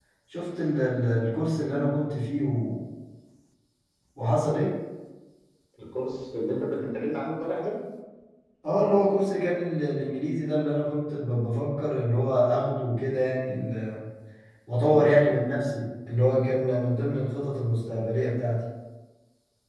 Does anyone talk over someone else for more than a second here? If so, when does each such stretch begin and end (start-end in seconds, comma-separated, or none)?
none